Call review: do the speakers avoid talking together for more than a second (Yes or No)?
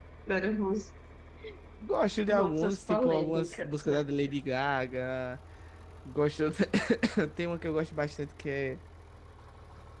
No